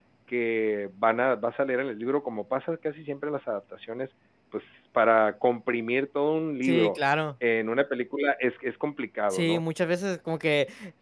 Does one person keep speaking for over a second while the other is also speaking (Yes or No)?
No